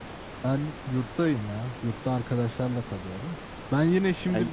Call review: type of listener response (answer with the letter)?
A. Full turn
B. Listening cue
B